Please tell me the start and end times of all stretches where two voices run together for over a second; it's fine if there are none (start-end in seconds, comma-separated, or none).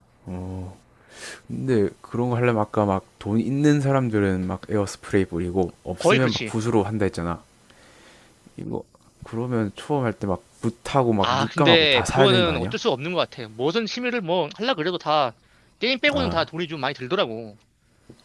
11.2-12.8